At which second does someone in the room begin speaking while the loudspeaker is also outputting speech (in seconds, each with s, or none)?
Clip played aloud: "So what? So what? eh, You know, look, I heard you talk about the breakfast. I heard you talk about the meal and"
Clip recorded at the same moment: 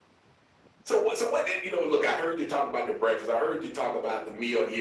none